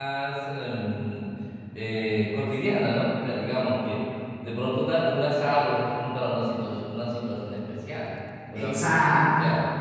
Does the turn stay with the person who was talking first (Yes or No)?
Yes